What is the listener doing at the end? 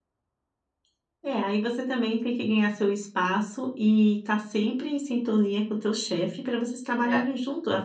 listening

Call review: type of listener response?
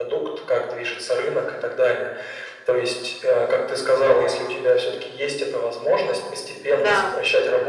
listening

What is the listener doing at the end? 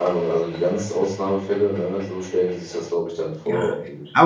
taking over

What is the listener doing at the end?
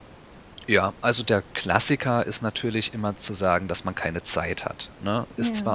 listening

